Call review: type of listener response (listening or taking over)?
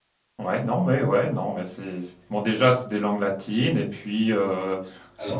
listening